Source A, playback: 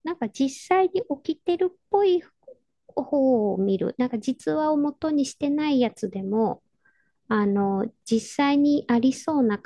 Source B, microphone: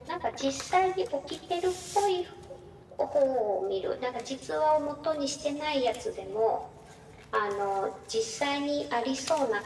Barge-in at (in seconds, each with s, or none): none